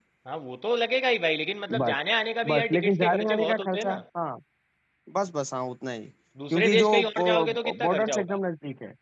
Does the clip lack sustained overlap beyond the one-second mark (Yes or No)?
No